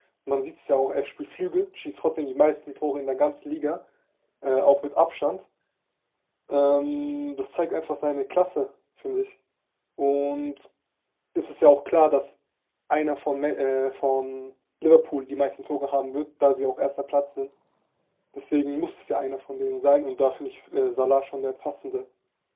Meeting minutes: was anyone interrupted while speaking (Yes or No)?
No